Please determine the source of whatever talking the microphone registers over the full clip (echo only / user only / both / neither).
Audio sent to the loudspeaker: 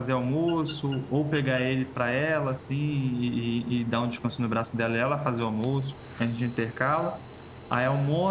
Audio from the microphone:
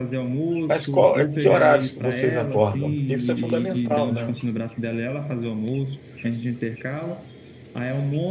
both